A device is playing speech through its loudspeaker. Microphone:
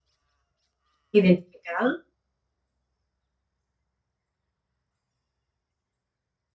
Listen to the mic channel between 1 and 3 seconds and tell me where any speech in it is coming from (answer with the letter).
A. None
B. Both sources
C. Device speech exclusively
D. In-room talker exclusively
D